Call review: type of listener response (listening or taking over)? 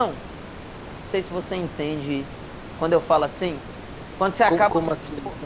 taking over